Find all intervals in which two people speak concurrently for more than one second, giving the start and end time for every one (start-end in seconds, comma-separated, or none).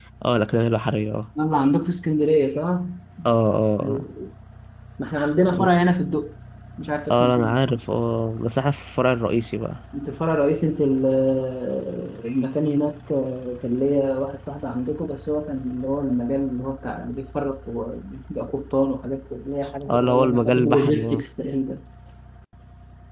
19.9-21.2